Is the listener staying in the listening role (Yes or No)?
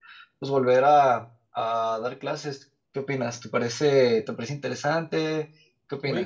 No